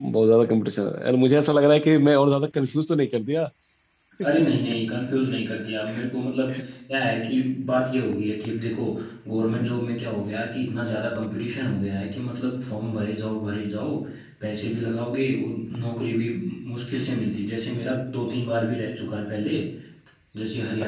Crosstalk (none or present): none